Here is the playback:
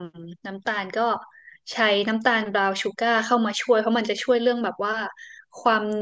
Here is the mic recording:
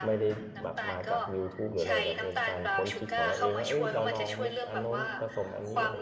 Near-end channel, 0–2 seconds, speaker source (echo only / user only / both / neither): both